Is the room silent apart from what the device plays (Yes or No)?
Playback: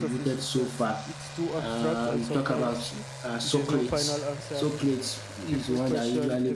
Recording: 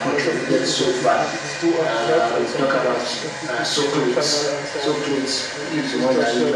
No